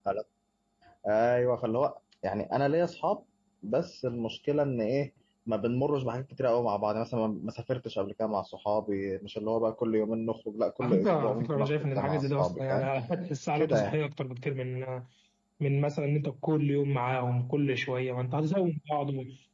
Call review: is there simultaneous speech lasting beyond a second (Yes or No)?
Yes